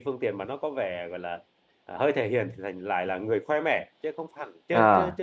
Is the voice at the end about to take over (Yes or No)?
No